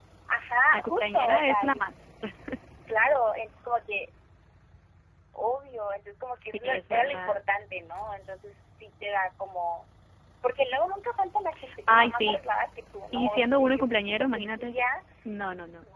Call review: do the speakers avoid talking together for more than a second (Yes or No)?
No